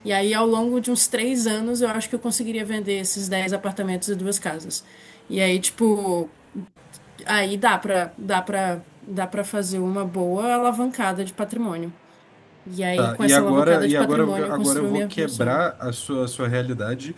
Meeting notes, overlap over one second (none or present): present